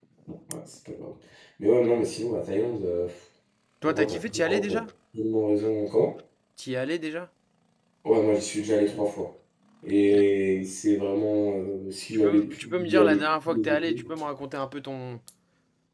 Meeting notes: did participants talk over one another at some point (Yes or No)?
Yes